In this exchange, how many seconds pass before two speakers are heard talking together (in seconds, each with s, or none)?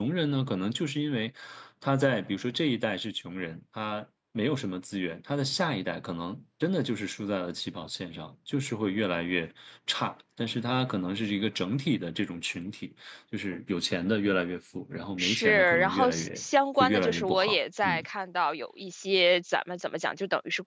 15.2 s